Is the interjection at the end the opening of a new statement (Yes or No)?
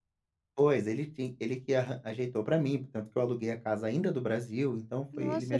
Yes